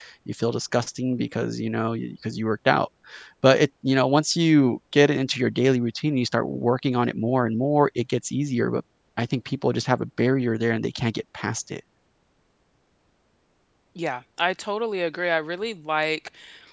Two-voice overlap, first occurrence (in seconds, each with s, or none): none